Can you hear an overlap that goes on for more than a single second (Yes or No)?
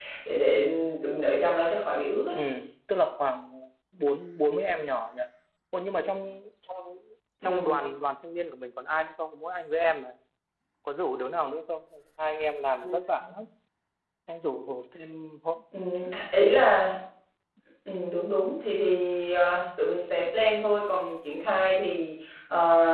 No